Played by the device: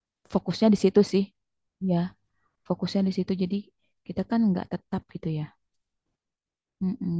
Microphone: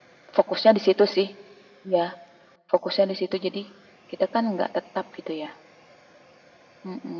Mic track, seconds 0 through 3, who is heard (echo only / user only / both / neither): echo only